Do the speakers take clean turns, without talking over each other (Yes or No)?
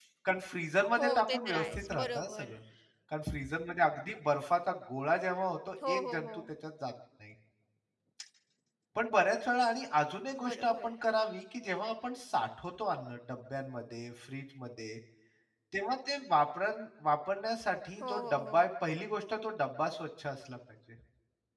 No